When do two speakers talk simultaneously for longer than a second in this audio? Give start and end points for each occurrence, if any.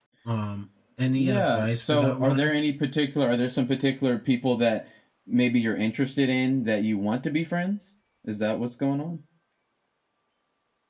1.2-2.5

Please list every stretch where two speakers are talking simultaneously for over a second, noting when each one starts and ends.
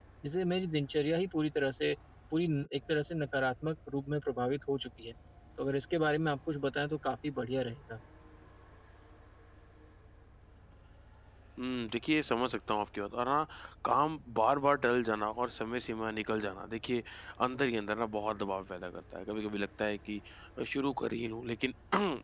none

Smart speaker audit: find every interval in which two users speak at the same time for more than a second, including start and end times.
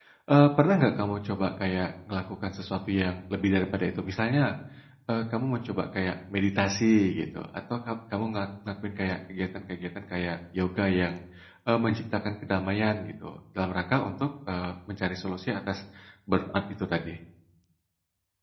none

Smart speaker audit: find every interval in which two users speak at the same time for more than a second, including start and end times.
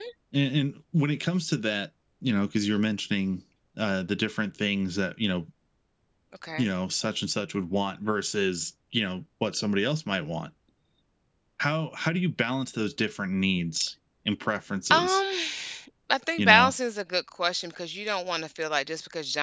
none

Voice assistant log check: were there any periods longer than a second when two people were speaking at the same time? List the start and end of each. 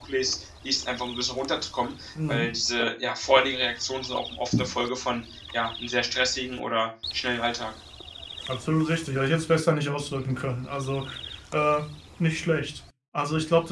none

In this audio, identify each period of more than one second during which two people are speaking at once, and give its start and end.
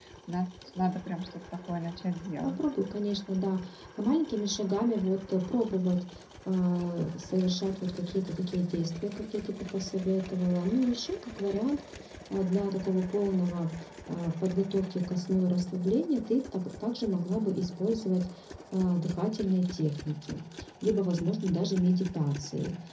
none

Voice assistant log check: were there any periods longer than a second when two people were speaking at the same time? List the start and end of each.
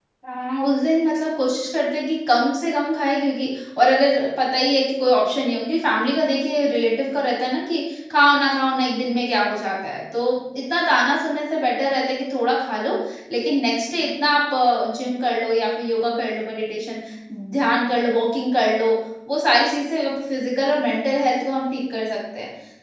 none

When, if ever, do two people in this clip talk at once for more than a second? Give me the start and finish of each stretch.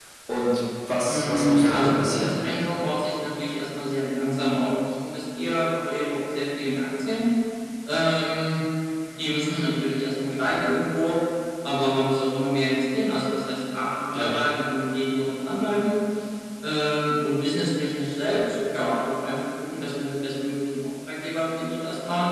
1.1-2.3

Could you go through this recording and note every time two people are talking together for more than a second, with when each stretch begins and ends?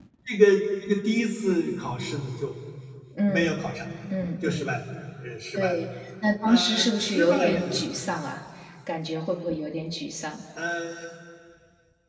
6.5-7.8

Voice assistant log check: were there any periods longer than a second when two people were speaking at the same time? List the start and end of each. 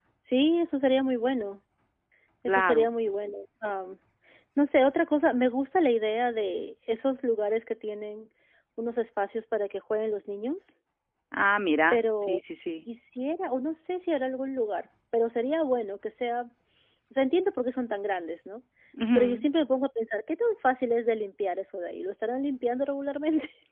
none

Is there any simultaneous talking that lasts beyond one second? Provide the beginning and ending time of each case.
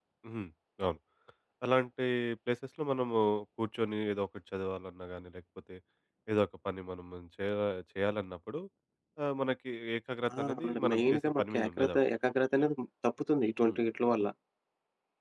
10.5-12.0

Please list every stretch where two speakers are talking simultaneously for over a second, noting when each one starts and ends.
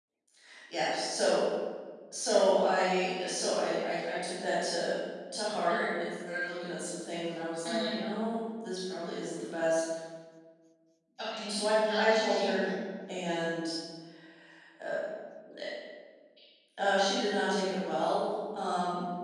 11.5-12.7

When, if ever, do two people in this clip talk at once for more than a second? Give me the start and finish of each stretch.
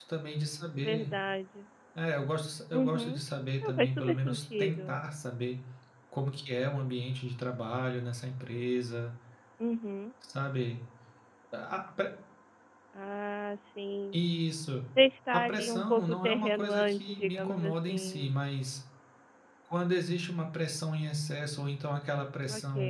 3.6-5.0, 15.3-18.3

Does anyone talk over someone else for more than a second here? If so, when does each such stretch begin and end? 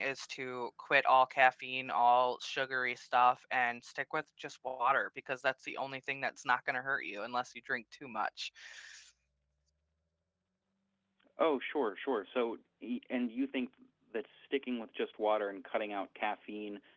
none

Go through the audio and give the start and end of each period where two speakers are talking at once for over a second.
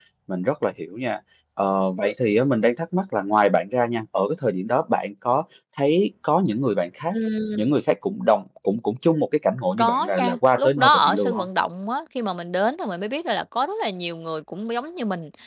9.8-11.5

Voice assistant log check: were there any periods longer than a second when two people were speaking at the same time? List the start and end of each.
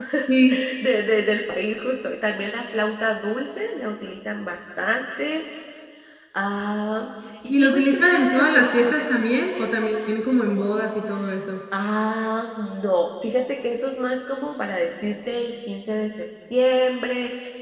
7.5-9.2

